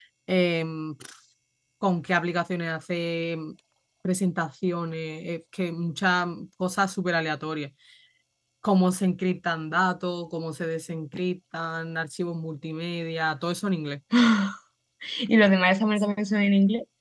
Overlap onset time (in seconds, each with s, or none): none